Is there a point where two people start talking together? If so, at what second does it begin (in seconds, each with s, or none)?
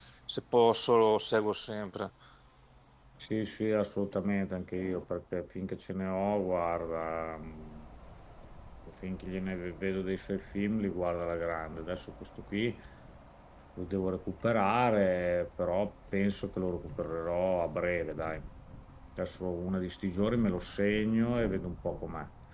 none